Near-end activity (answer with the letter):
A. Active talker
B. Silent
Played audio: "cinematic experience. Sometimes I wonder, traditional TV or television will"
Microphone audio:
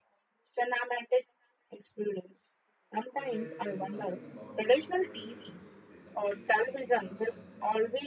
A